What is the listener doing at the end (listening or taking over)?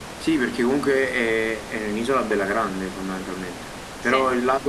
listening